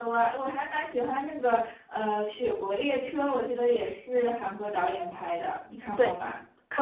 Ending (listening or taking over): taking over